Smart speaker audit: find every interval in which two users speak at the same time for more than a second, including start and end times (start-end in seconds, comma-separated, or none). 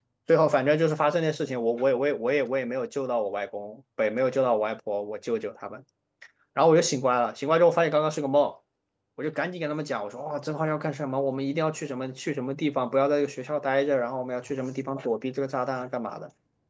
none